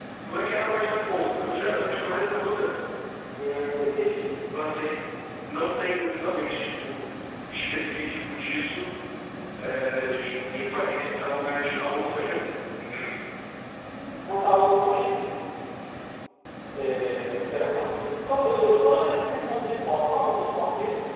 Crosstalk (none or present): none